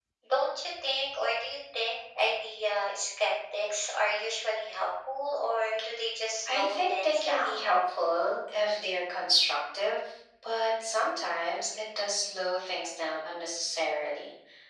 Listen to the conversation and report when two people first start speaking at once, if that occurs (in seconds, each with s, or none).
6.5 s